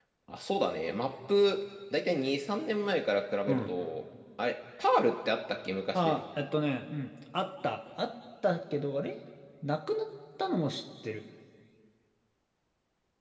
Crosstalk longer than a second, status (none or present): none